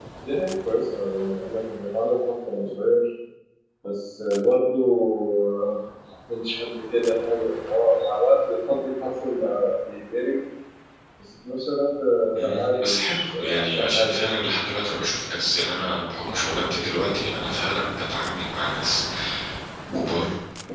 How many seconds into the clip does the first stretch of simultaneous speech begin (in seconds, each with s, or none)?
12.4 s